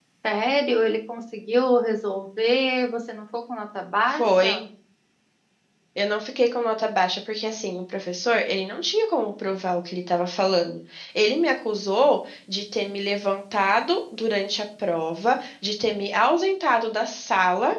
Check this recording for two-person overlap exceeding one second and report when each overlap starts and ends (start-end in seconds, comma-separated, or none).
none